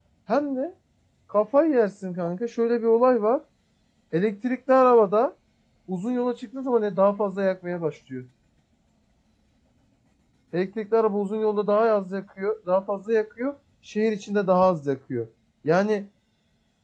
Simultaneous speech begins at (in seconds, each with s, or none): none